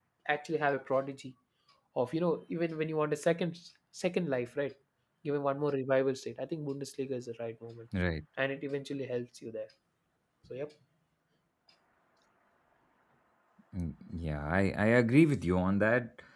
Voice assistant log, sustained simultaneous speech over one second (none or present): none